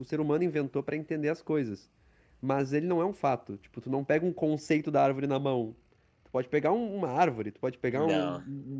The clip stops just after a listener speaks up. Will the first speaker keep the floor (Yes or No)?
Yes